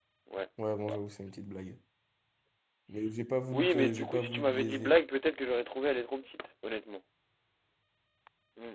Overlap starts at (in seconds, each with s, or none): 3.5 s